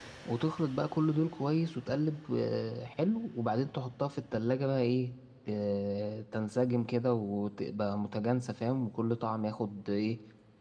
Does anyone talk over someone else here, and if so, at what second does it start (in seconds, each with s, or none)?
none